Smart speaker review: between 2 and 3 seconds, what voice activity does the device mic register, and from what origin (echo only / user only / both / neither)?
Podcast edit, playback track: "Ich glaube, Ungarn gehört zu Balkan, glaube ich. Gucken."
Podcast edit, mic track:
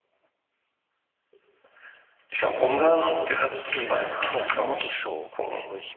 echo only